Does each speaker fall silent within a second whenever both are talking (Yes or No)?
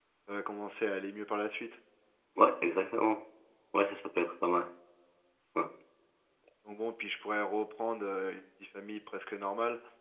Yes